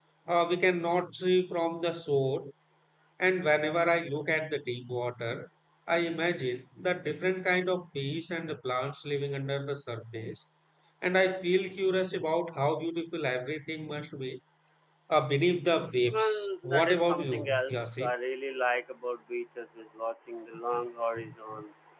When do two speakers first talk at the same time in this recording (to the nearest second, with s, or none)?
16 s